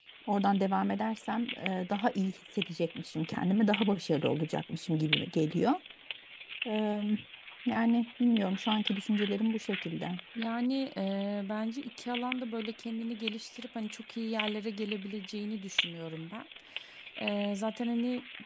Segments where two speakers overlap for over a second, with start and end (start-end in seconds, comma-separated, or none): none